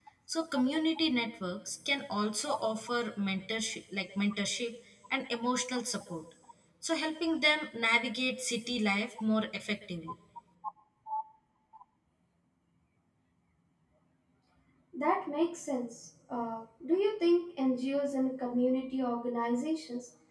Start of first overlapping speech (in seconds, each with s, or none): none